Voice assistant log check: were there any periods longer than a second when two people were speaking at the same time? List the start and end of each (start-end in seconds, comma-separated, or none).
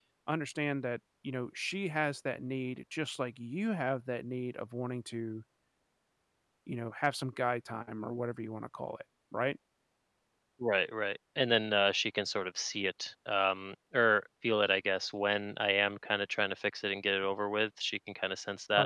none